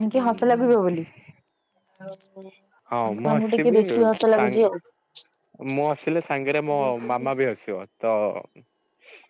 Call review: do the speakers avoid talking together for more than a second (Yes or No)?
No